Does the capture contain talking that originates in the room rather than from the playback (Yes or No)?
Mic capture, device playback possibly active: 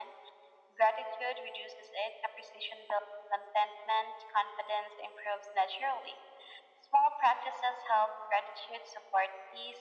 No